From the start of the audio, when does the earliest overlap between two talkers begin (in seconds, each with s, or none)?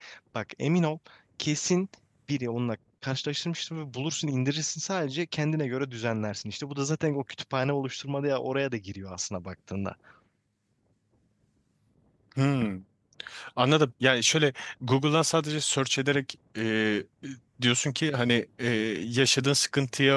none